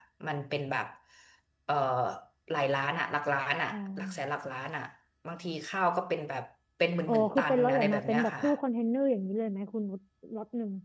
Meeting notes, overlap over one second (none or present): present